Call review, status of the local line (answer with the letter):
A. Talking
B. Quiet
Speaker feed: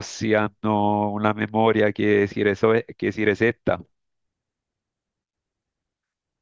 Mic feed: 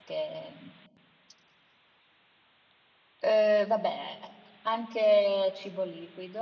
A